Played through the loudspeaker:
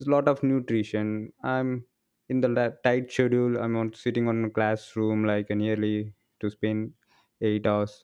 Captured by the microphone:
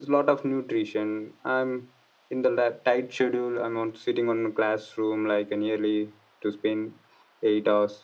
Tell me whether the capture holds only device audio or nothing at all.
Yes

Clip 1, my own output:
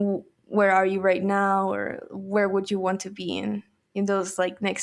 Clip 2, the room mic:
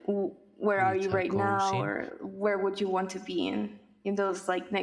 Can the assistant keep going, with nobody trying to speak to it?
No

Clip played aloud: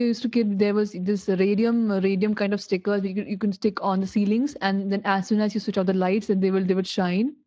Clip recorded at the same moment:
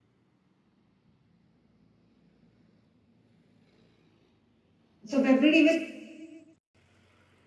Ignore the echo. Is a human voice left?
Yes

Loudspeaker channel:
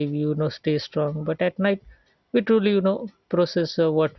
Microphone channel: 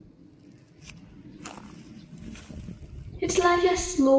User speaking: Yes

